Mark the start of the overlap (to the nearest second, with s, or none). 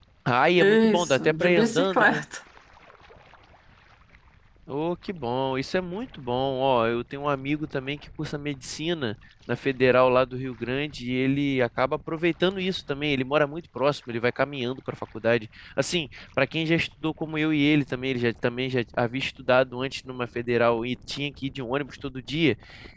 1 s